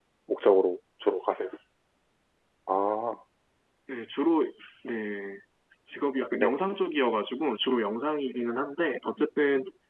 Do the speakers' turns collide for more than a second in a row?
No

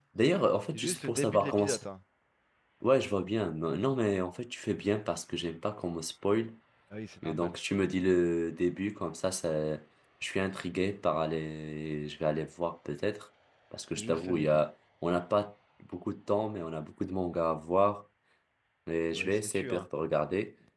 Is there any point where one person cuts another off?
Yes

